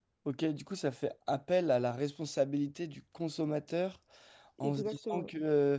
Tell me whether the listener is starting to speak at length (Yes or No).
No